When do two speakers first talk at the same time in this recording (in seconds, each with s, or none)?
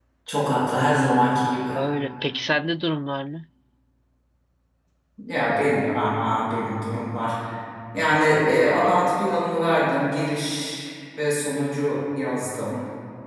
none